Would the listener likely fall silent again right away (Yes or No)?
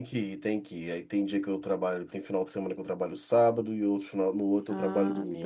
No